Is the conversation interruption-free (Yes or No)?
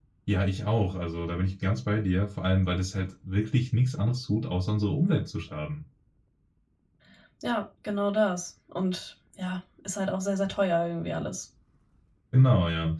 Yes